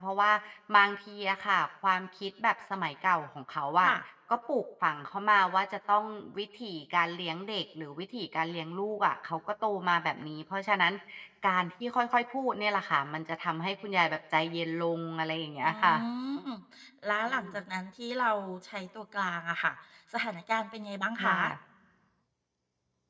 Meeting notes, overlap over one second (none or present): none